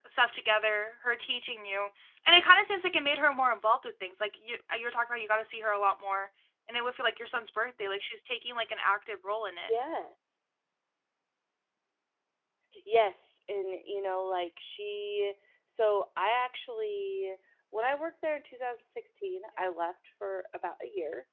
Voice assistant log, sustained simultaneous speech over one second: none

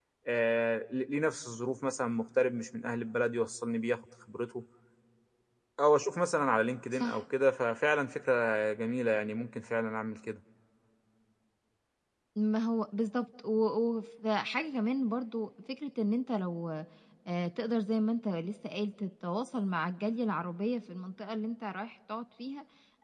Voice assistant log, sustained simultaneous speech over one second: none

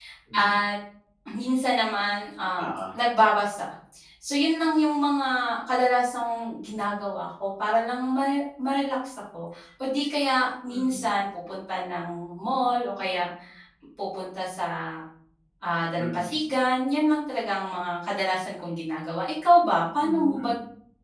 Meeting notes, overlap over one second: none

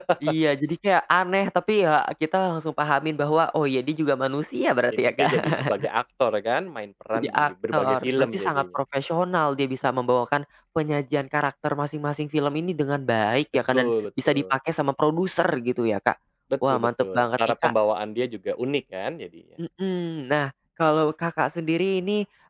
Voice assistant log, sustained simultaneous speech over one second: present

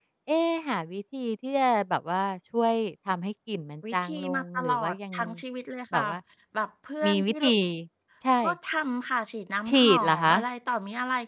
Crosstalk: present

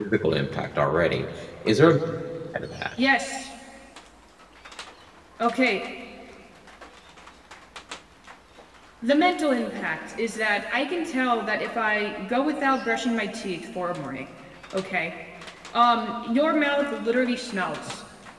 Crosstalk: none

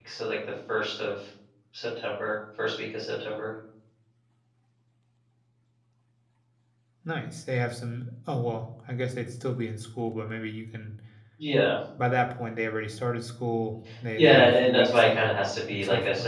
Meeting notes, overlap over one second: present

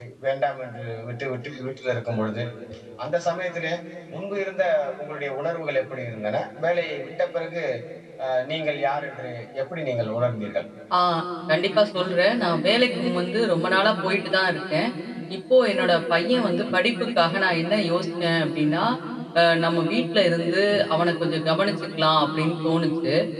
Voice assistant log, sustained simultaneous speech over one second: none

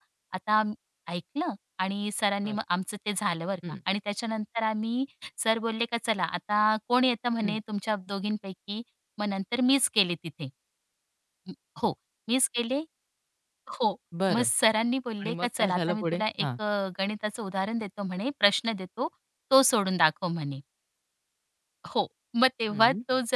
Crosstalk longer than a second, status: present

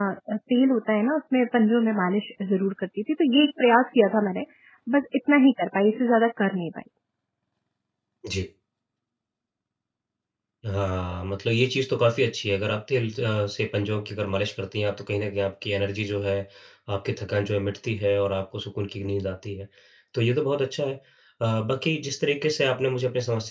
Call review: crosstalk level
none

